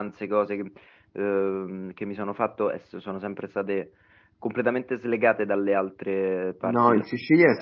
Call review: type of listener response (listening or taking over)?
taking over